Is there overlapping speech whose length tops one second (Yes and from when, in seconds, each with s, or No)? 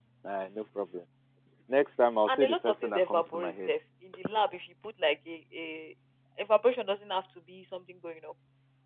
Yes, from 2.3 s